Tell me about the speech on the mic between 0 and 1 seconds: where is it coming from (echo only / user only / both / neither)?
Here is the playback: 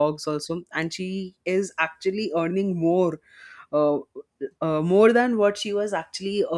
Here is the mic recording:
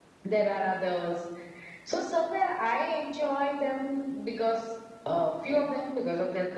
user only